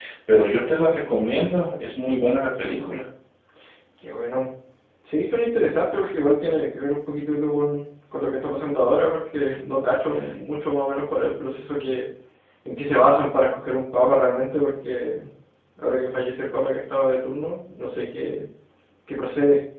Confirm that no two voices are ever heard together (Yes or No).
Yes